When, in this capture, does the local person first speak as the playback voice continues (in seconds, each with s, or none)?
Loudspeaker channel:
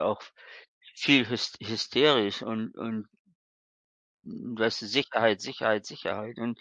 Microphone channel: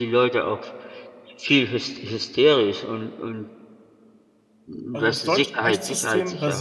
4.9 s